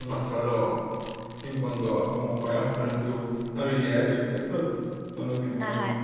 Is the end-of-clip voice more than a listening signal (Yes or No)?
Yes